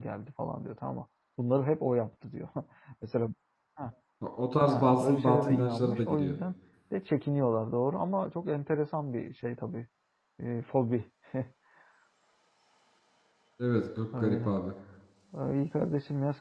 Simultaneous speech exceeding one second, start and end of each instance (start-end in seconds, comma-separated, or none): 4.6-6.4